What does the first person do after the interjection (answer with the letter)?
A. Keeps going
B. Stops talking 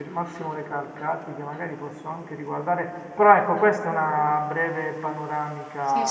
B